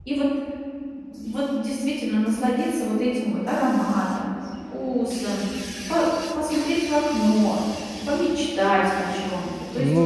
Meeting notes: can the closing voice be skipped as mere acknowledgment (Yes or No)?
No